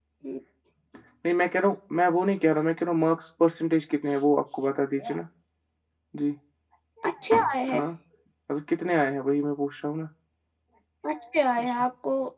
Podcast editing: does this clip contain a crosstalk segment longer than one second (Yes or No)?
No